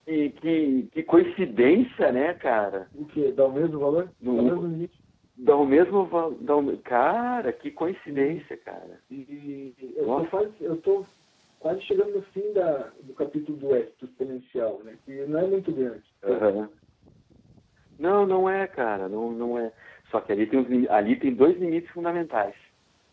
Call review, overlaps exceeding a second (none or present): none